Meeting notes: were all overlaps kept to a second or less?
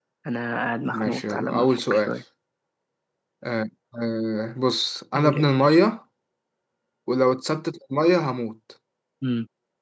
No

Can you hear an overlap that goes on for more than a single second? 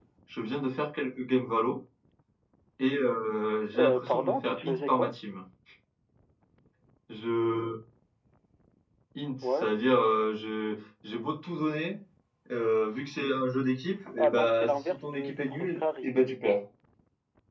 Yes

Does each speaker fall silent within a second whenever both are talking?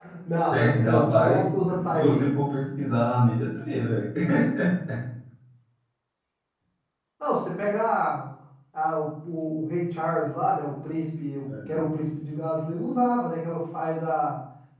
No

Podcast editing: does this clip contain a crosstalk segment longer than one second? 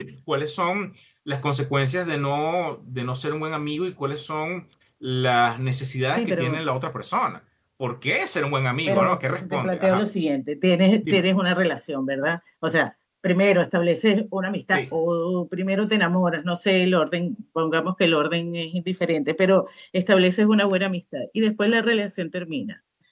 Yes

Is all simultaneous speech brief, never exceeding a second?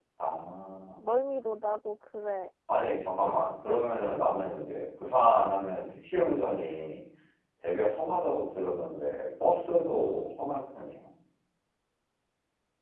Yes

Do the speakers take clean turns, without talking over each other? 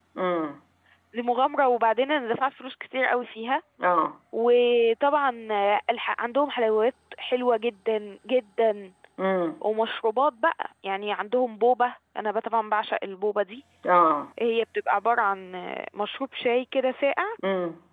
Yes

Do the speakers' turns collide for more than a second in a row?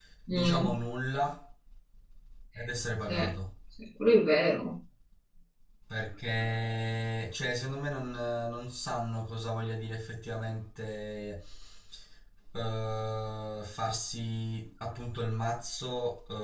No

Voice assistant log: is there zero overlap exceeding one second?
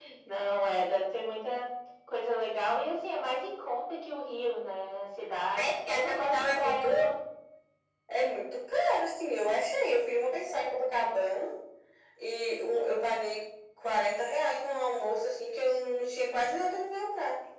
No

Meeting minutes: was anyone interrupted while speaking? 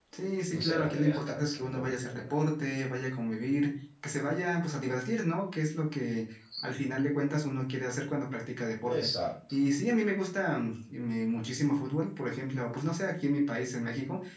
Yes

